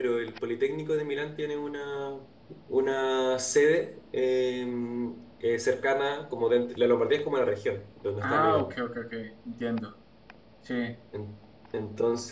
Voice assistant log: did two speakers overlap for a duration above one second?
No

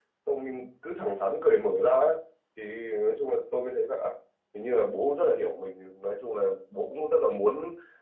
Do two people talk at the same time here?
No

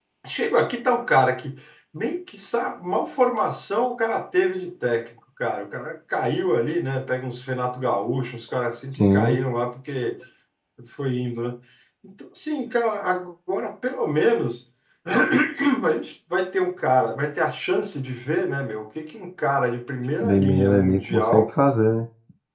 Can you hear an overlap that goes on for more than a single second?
Yes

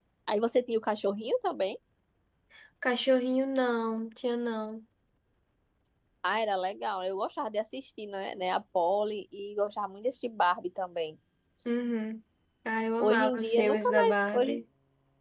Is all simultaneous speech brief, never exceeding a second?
No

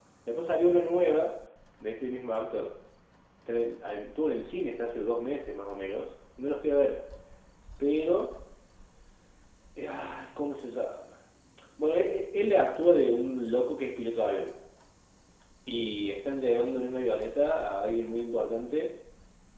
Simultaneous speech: No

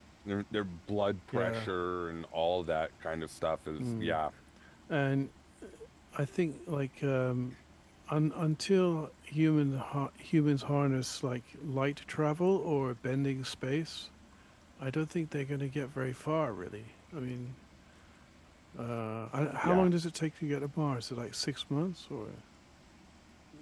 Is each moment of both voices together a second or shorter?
Yes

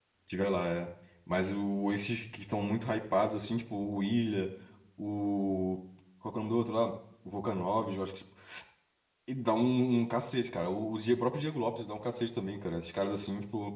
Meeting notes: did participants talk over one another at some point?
No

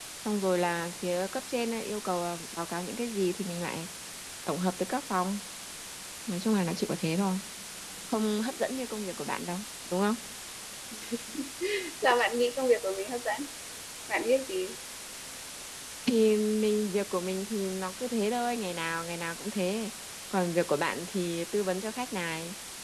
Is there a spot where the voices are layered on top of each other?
No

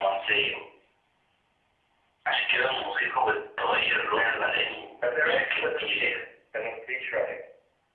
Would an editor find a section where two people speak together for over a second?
Yes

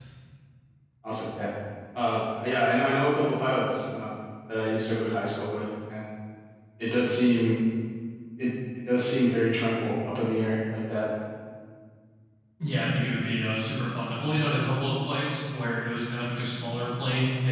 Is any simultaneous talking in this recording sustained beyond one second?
No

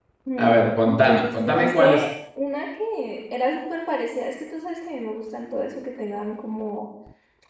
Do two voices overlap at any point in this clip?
Yes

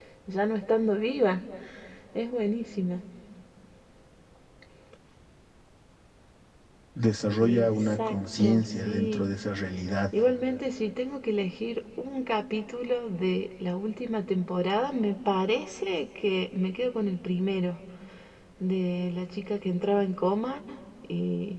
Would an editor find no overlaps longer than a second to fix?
No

